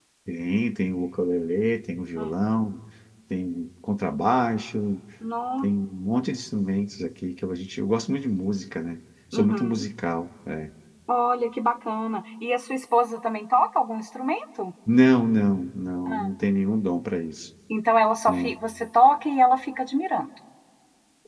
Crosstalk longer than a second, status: none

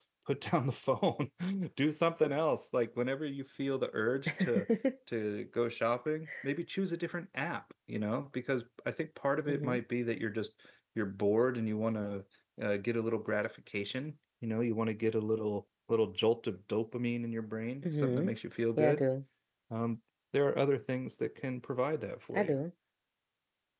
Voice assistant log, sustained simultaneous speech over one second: none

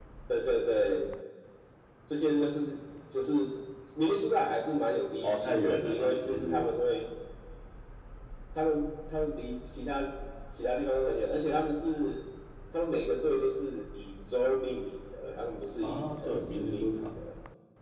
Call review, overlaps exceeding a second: present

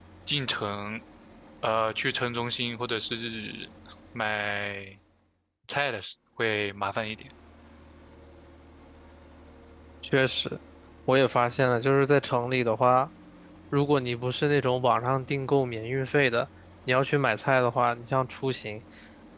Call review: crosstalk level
none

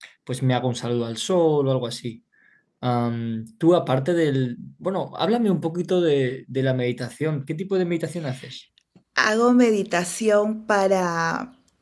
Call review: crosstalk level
none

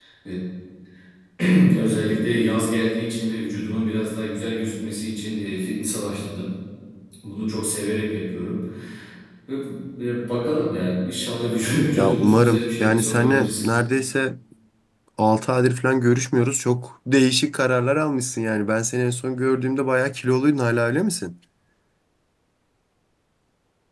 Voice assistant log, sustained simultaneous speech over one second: present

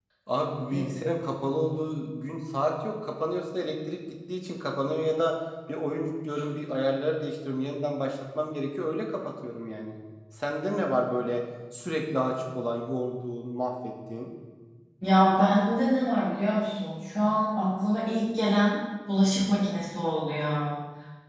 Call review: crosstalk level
none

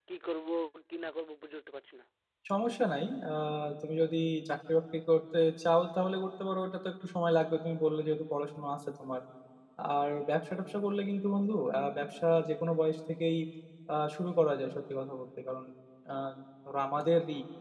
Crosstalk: none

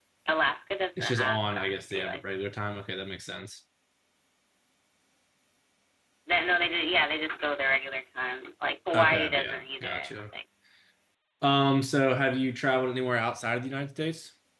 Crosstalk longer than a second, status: present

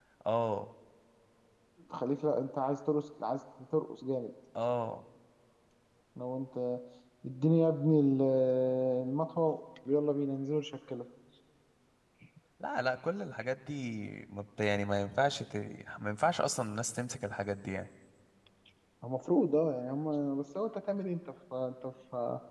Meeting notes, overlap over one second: none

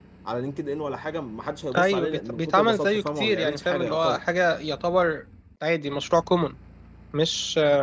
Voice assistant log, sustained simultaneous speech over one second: present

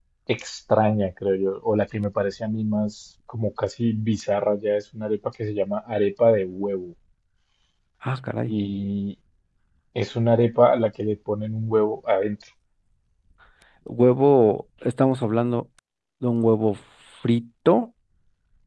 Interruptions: none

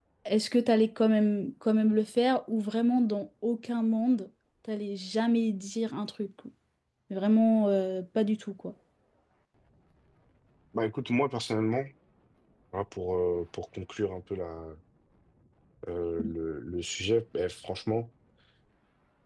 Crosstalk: none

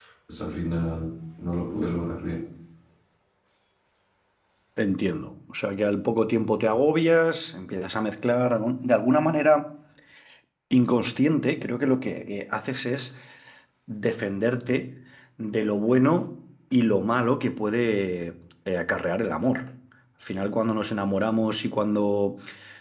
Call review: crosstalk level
none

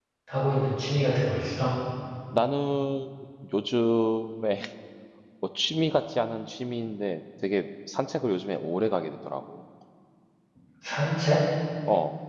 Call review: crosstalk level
none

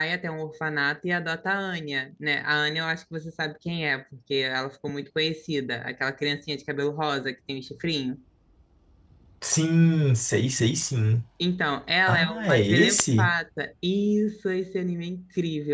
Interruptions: present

